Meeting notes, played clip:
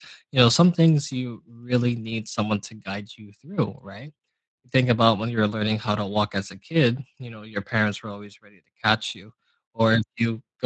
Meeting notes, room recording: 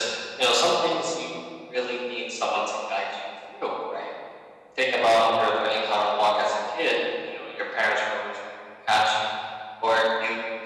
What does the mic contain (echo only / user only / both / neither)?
echo only